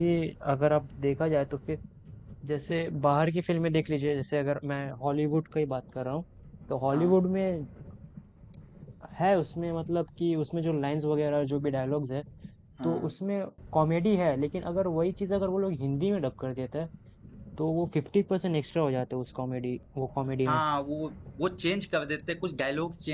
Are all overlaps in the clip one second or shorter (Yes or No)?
Yes